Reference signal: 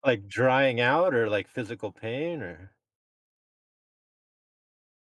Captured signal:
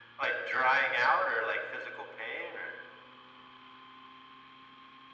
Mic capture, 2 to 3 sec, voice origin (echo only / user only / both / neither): echo only